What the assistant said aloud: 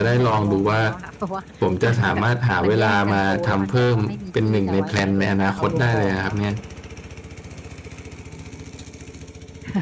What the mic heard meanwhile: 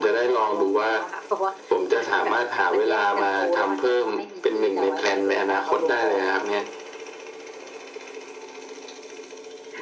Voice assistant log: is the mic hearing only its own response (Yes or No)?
Yes